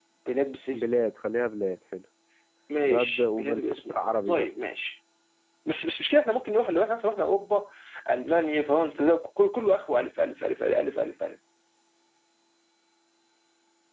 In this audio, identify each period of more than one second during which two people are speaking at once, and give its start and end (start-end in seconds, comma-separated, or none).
2.9-4.5